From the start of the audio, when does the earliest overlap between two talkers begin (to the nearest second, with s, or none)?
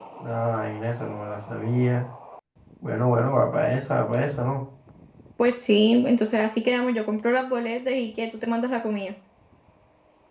none